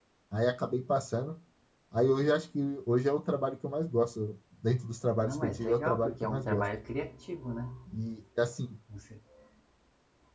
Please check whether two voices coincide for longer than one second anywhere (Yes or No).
Yes